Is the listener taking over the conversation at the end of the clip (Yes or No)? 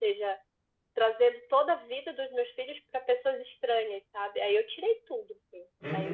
Yes